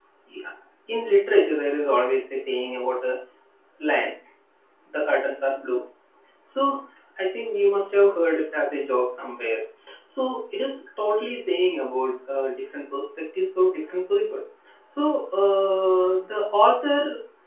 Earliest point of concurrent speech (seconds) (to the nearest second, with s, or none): none